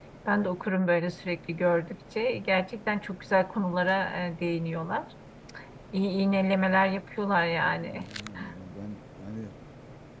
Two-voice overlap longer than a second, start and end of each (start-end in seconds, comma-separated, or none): none